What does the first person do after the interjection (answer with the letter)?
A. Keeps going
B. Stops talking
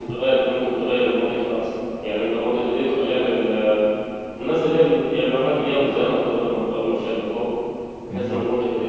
A